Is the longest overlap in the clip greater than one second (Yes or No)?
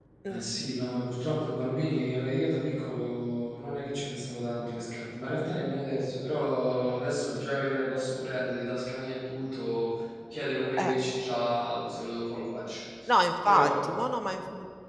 No